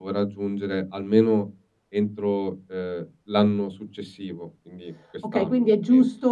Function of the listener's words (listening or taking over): taking over